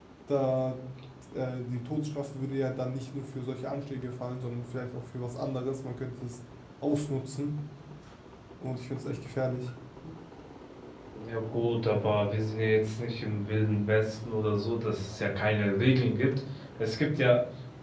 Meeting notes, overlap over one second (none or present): none